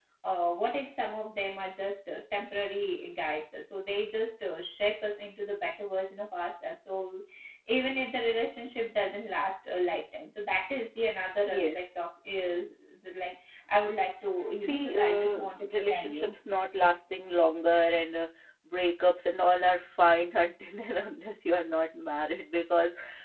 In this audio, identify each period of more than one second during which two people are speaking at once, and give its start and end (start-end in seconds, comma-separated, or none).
14.6-16.4